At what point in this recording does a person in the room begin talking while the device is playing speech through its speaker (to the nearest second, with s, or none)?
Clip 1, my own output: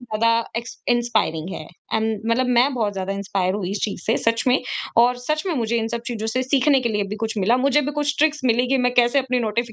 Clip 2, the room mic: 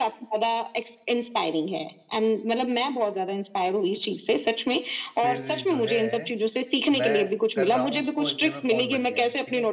5 s